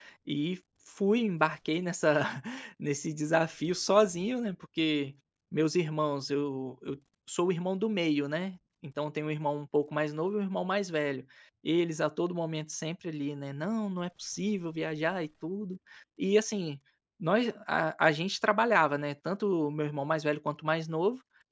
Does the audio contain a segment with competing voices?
No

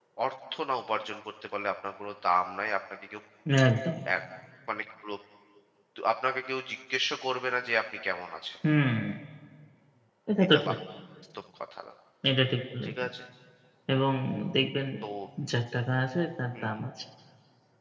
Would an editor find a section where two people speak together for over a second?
No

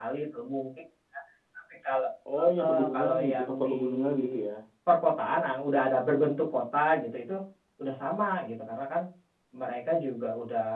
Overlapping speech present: Yes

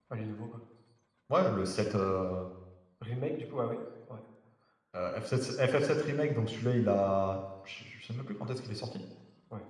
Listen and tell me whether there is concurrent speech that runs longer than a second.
No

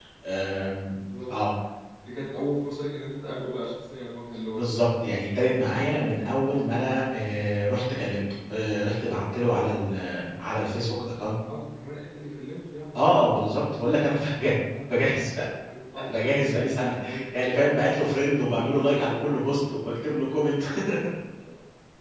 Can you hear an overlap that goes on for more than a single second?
No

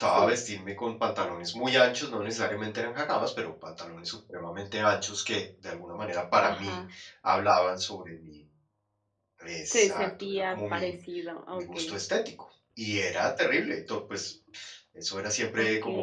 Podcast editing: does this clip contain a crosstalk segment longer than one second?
Yes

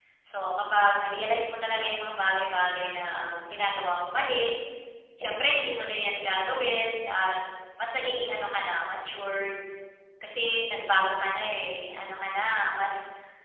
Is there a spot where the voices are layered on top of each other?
No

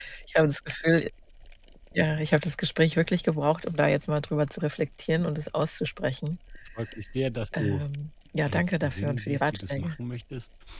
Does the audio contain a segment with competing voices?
Yes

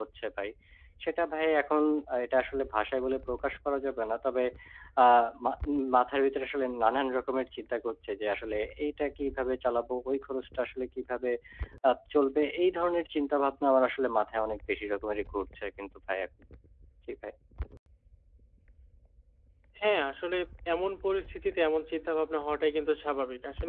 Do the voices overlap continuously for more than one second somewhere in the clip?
No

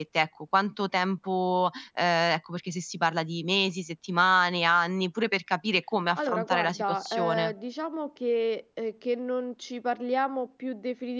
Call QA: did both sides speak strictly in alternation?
No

